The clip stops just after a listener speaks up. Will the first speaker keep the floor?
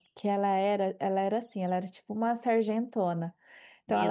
Yes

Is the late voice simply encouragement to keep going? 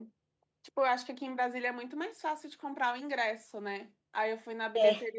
Yes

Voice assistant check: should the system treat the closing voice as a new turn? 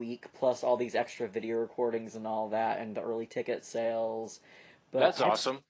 Yes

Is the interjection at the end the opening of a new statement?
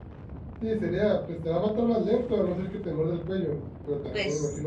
No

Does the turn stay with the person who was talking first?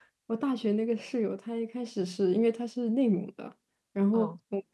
Yes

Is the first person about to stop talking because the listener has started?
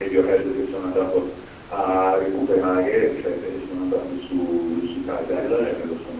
No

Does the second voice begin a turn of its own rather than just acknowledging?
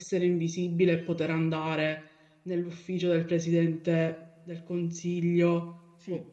Yes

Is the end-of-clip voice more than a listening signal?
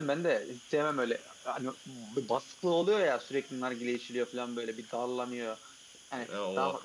No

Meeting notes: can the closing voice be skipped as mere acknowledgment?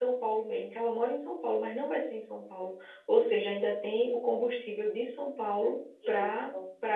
Yes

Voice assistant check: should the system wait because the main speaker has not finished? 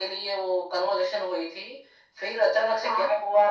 Yes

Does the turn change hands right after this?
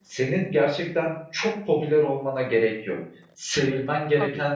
No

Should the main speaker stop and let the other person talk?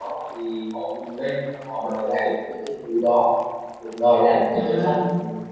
No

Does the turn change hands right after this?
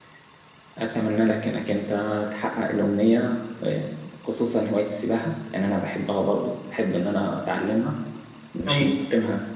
No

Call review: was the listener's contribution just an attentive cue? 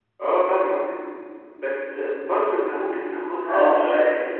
Yes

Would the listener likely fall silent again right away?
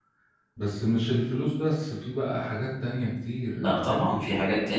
No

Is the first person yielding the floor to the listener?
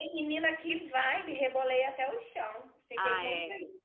Yes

